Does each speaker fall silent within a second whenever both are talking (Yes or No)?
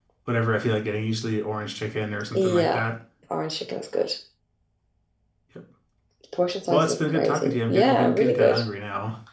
No